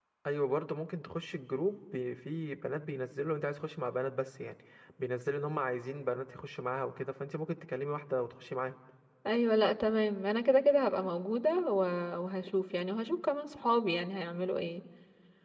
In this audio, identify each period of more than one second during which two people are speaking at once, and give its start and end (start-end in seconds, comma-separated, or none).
none